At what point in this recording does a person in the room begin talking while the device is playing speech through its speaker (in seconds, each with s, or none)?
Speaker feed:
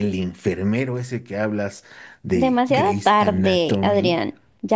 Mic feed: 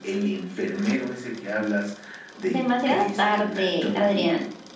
none